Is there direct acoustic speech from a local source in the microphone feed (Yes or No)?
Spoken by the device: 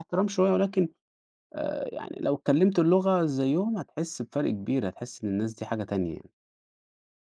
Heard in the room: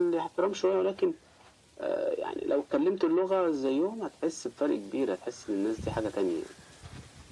No